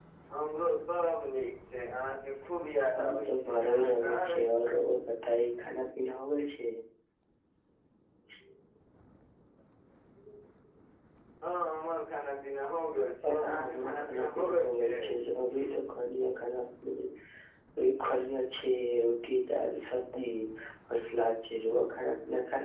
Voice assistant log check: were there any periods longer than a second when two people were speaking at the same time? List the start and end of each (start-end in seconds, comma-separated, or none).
2.9-4.5, 13.2-15.1